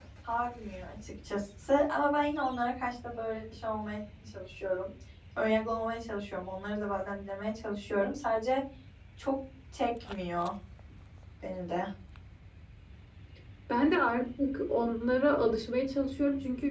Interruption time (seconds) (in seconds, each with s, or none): none